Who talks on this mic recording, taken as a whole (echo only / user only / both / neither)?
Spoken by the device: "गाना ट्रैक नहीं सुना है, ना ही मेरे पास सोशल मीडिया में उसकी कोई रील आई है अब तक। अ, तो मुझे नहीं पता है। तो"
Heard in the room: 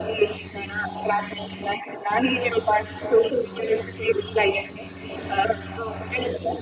echo only